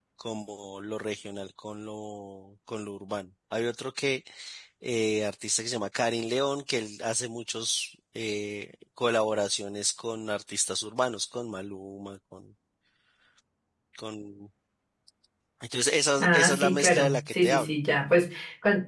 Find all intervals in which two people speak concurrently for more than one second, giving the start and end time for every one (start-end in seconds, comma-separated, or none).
16.2-17.7